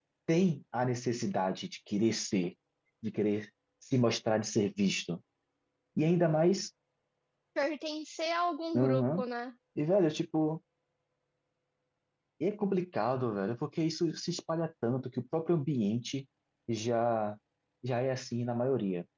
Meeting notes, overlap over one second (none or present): none